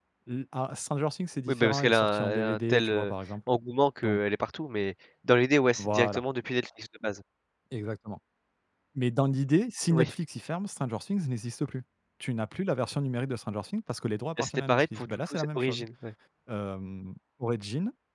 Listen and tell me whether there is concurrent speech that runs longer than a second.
Yes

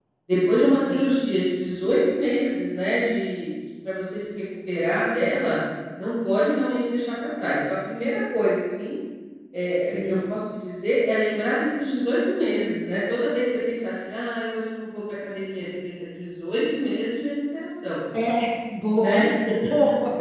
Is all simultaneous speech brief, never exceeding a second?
Yes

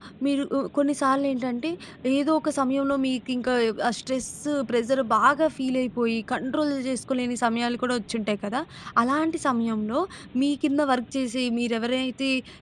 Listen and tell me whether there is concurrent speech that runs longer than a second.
No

